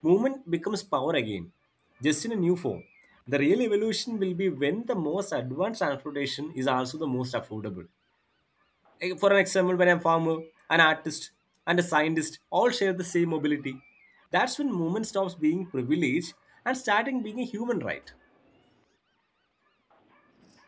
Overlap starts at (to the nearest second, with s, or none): none